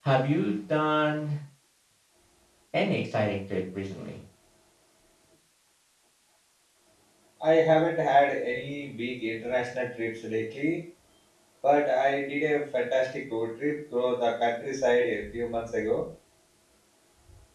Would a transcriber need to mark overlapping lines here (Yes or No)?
No